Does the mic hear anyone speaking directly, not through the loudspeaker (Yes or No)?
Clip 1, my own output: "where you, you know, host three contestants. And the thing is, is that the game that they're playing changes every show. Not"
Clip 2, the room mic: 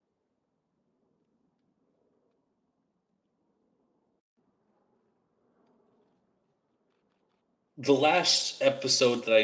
Yes